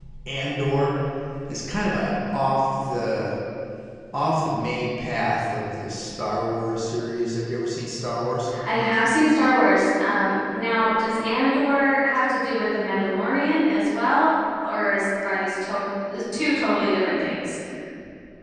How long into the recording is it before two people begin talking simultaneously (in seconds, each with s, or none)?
none